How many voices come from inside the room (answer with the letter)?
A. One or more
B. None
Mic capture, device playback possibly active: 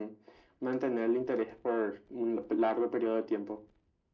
B